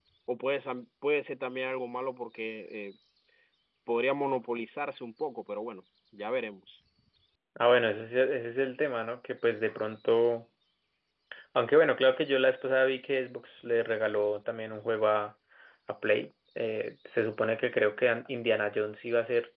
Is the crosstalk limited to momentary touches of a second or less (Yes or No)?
Yes